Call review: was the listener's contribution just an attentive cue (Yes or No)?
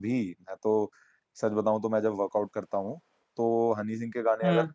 Yes